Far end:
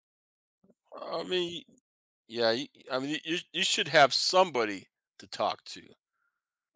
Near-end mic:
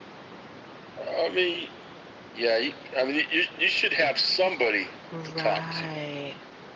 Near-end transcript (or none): Right.